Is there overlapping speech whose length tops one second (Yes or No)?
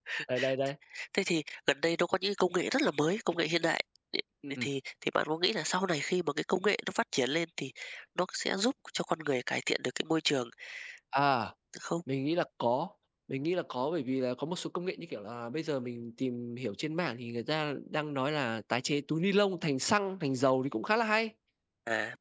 No